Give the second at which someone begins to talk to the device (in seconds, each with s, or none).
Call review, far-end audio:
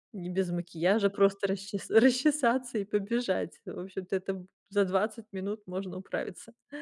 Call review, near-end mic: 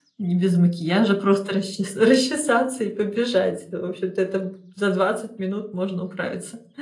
none